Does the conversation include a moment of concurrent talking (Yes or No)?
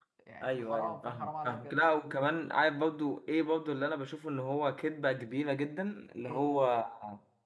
Yes